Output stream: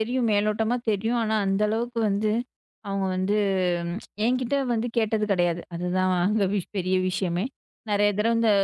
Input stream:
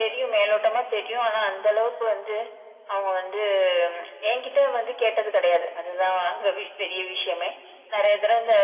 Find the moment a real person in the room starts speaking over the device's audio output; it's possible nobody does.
none

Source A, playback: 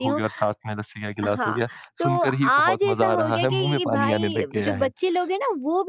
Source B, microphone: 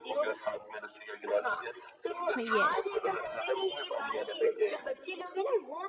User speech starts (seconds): 2 s

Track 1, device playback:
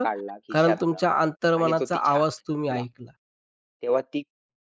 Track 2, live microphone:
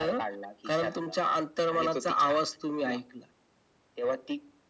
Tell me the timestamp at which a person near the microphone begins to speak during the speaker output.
none

